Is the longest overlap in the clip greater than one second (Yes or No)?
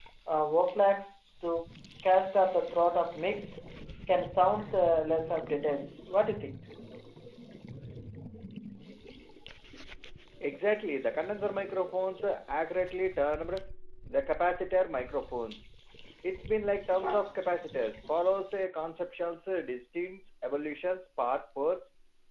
No